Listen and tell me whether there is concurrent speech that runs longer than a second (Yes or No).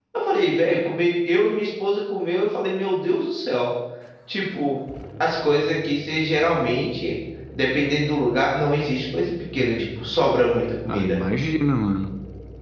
No